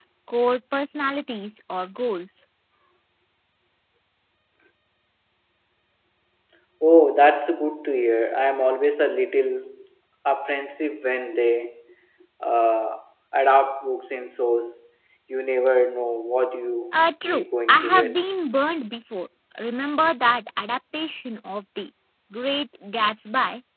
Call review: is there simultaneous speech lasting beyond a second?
Yes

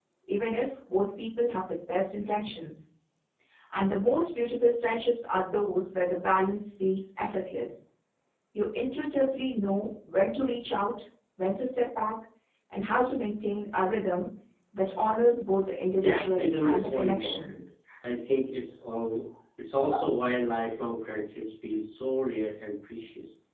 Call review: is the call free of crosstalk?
No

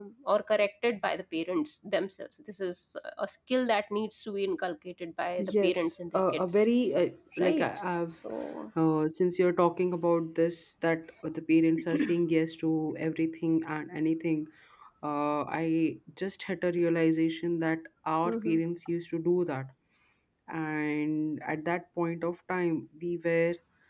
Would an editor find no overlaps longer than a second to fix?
No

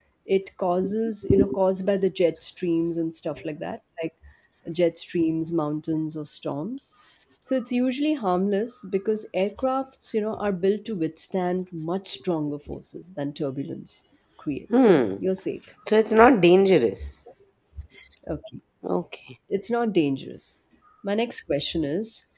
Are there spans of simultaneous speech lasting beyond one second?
No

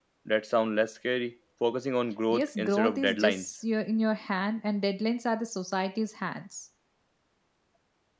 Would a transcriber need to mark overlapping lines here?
Yes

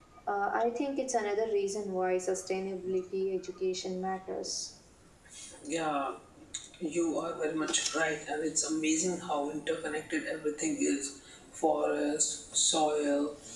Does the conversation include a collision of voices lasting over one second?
No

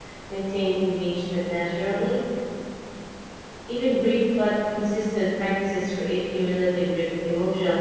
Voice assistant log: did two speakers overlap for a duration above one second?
No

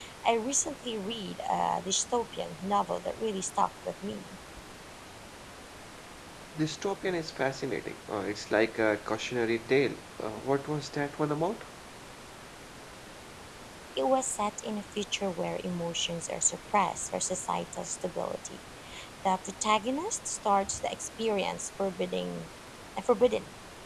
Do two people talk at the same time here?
No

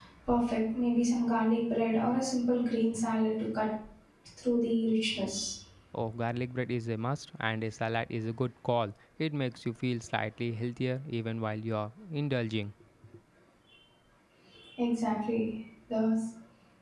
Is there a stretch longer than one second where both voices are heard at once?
No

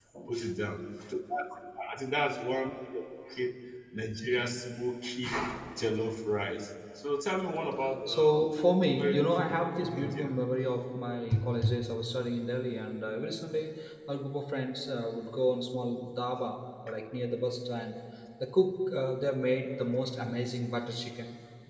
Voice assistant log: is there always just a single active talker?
No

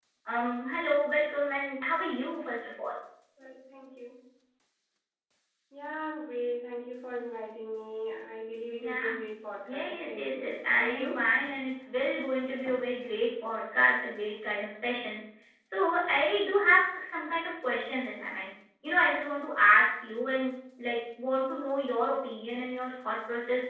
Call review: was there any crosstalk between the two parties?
Yes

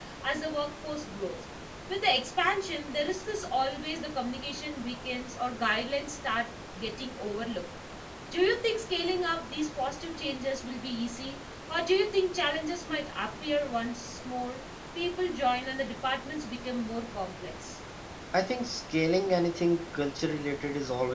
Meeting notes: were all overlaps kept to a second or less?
Yes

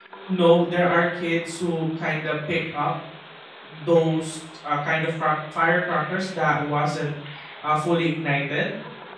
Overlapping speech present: No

